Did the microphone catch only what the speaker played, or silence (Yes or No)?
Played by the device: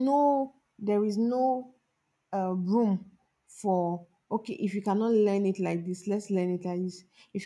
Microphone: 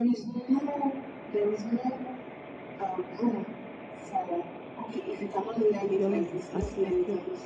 No